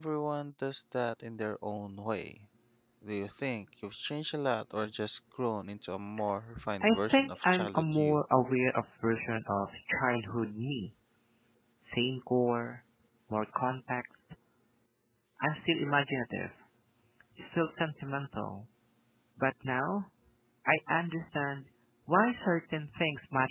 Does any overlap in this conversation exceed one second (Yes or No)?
Yes